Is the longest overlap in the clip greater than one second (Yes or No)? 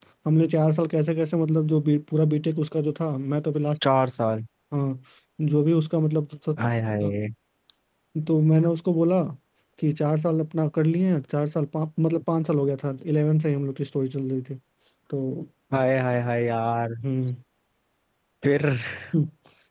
No